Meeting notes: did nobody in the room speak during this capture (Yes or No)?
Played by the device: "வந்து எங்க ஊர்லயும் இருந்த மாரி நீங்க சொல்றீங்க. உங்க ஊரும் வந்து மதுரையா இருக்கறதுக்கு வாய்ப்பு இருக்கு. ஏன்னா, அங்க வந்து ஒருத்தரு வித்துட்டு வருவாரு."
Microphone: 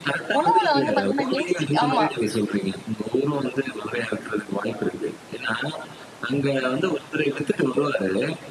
No